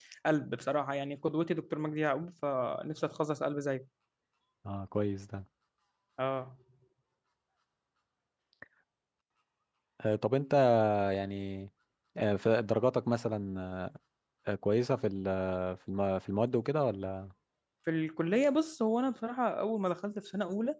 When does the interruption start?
none

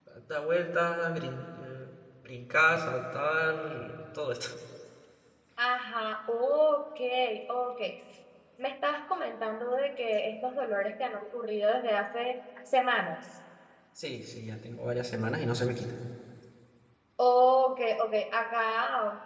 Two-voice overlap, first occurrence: none

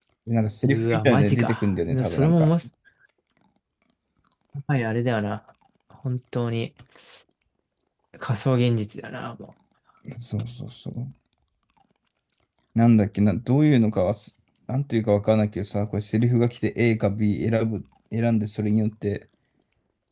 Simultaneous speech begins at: 1 s

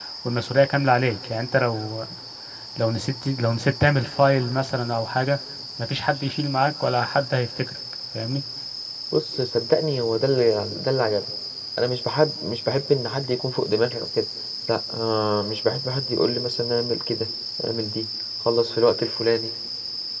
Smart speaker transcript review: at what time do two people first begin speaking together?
none

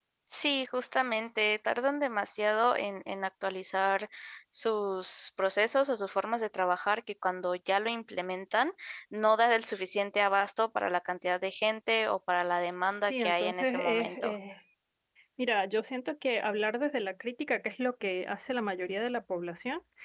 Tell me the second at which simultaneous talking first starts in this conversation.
13 s

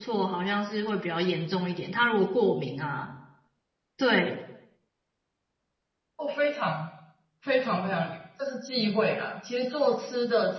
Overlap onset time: none

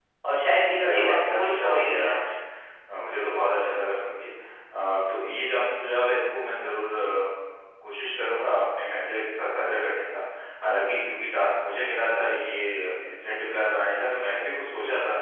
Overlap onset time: 1 s

